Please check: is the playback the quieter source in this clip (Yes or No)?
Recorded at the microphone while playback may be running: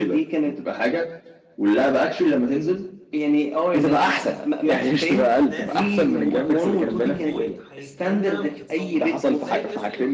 No